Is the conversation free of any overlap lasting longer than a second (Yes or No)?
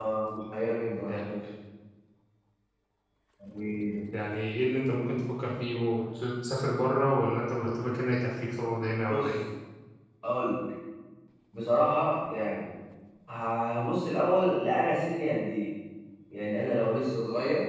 Yes